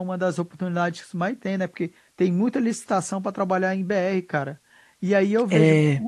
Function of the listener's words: listening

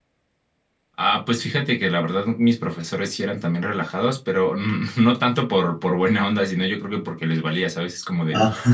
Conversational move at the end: listening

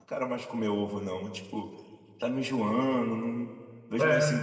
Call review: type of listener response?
listening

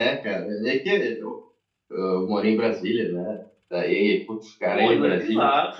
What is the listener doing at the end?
taking over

